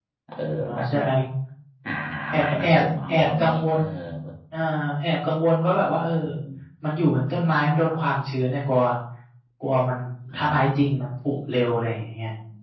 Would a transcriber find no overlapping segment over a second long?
No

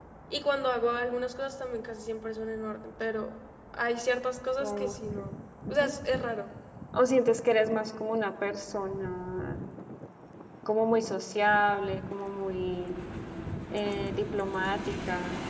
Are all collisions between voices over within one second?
Yes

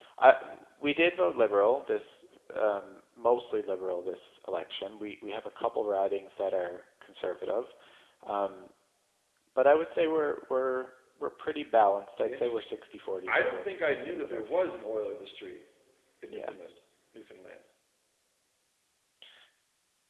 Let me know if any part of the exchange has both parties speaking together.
Yes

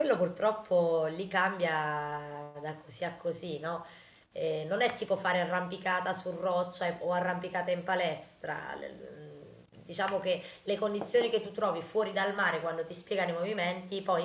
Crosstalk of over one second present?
No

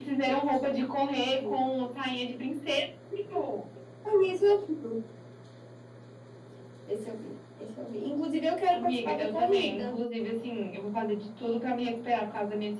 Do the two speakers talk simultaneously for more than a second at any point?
Yes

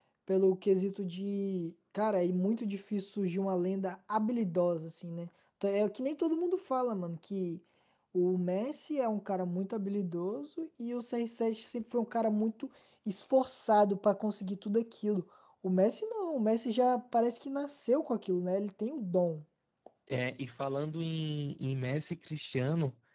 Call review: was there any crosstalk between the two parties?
No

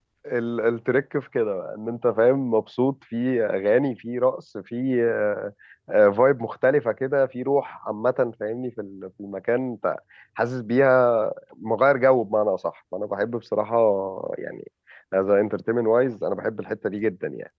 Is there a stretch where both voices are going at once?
No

